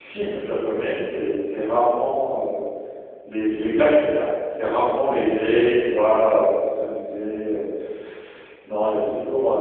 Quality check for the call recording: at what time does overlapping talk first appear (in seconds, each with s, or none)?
none